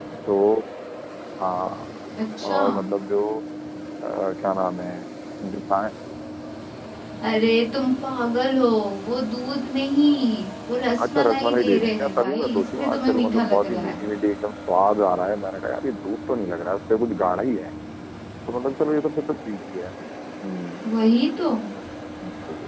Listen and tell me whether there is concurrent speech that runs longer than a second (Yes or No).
Yes